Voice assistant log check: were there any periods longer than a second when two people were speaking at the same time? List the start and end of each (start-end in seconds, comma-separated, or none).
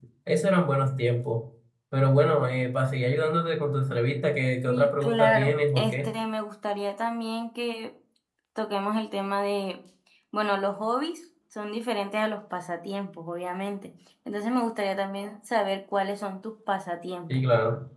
4.7-6.1